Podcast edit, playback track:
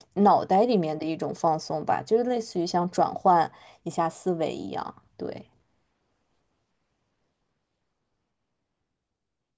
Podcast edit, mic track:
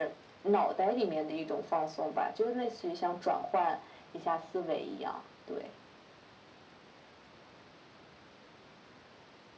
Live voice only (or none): none